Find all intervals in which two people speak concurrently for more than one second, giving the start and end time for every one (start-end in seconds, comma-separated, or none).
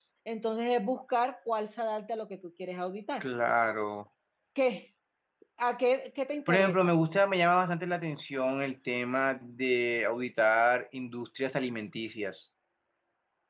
none